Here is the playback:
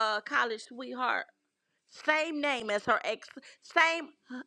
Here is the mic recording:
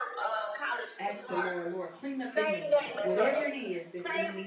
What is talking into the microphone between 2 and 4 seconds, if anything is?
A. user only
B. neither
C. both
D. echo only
C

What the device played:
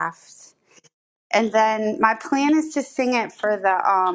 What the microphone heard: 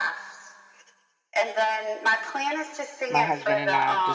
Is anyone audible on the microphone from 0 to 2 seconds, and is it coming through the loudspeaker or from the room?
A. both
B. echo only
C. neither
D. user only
B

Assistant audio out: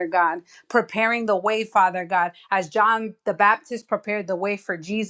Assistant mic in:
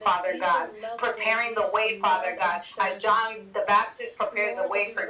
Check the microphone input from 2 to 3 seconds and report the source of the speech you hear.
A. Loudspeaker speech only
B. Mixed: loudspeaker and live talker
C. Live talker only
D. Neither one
B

